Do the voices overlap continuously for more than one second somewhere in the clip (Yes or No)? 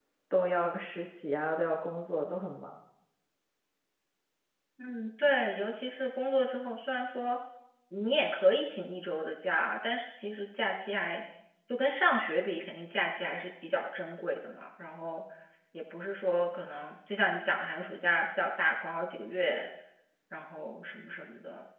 No